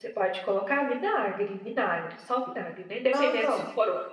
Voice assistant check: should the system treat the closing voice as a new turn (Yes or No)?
No